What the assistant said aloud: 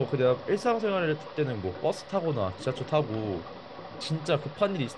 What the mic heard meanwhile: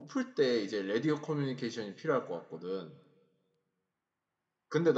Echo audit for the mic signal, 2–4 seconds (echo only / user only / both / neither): user only